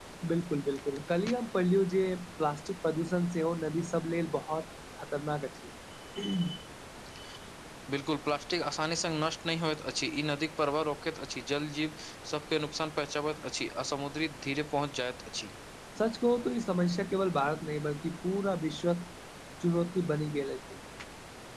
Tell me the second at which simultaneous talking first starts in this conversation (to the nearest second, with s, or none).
none